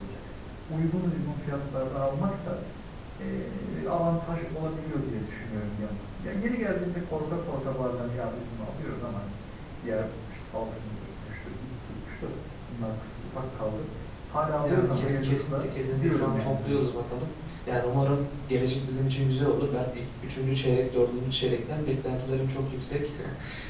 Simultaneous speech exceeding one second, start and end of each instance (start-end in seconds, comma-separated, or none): 14.6-16.8